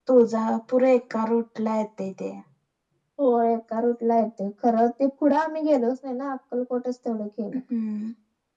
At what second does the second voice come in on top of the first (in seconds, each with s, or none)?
none